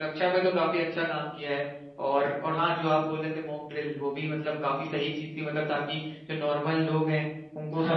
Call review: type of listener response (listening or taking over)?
listening